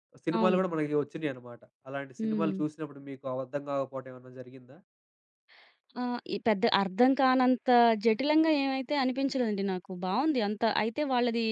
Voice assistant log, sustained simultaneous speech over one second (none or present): none